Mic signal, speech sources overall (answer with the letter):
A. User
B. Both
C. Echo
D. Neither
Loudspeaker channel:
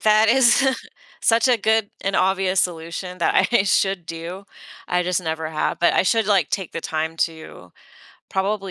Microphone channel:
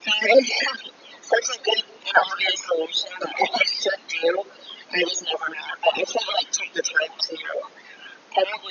C